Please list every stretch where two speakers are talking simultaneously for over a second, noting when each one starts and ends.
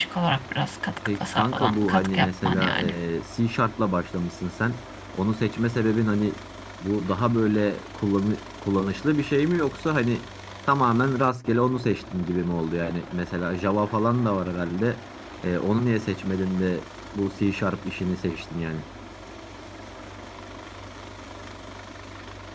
1.0-2.9

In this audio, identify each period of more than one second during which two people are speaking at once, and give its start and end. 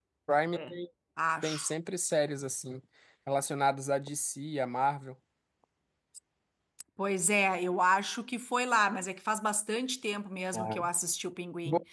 none

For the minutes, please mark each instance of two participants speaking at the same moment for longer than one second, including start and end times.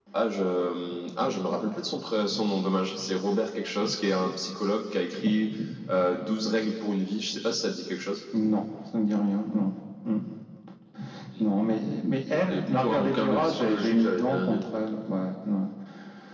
12.5-14.6

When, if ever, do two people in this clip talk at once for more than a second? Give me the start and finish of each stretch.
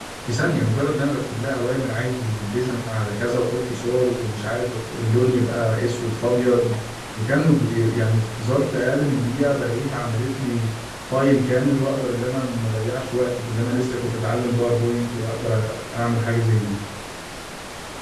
none

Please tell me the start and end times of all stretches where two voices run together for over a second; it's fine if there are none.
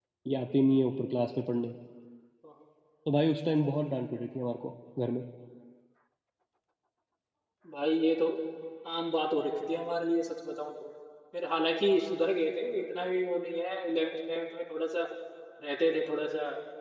none

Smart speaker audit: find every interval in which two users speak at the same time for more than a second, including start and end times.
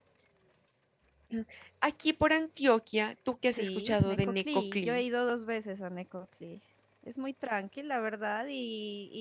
3.5-5.0

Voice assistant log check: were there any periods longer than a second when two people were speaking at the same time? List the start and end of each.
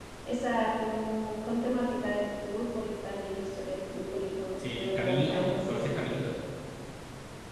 4.6-6.0

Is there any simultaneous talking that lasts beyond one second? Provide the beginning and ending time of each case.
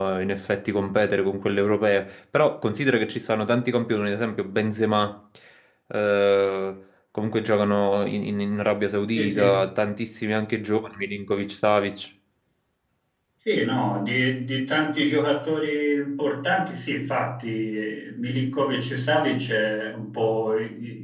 none

